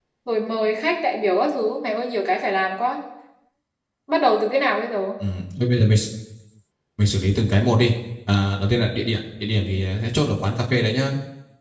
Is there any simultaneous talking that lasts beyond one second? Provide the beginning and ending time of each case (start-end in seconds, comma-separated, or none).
none